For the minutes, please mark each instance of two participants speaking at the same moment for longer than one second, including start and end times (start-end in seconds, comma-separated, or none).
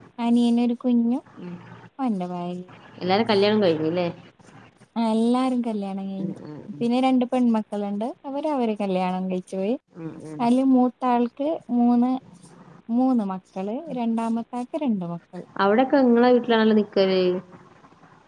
none